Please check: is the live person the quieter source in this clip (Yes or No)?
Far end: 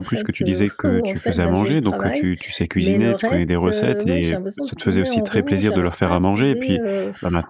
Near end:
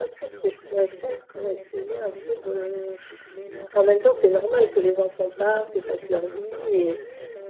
No